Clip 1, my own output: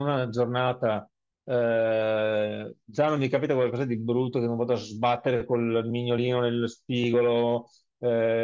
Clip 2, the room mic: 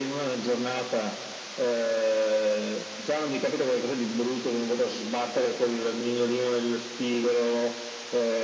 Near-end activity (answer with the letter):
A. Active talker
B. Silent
B